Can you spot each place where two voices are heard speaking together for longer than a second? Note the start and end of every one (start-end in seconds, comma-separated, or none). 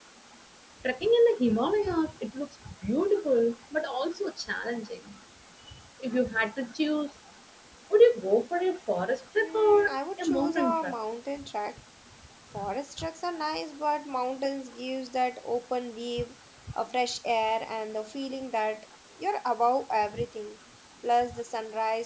9.4-10.9